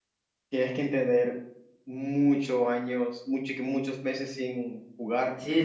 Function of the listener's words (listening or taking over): taking over